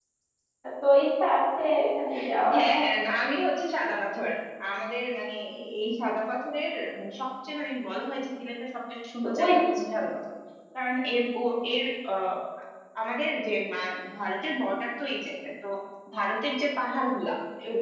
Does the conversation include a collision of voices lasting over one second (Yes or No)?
No